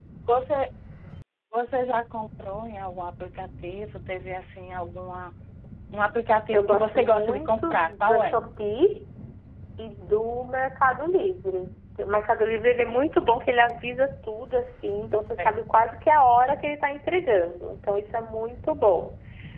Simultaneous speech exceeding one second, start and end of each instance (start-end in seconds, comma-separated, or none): 6.5-8.4